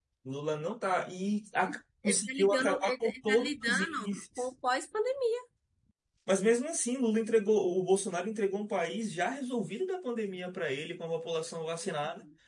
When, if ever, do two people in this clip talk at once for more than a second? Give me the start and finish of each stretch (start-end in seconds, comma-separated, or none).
1.5-4.5